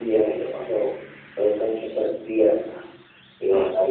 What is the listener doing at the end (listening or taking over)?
listening